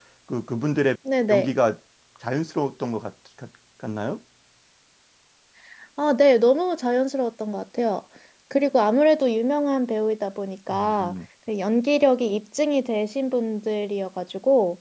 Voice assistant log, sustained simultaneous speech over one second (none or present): none